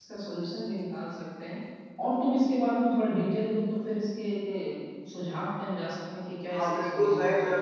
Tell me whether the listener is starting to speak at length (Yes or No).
Yes